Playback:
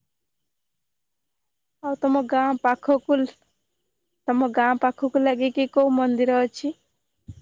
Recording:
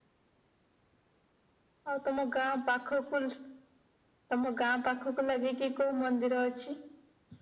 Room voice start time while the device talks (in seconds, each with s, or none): none